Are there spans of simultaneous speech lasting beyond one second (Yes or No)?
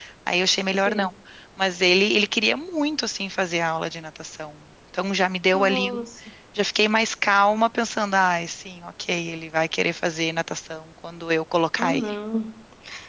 No